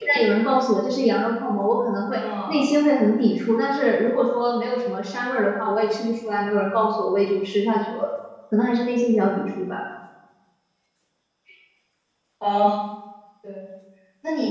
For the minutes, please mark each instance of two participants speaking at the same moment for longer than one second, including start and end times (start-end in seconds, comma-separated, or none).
none